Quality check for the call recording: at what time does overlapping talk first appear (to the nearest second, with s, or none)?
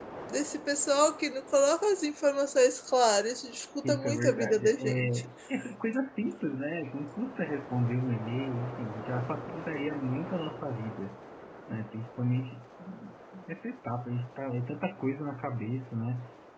4 s